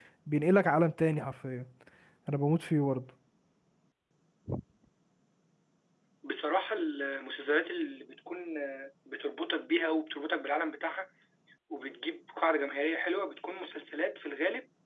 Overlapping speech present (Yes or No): No